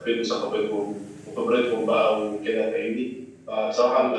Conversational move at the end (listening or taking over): listening